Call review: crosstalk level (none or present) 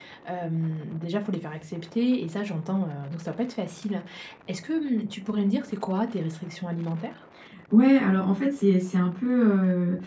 none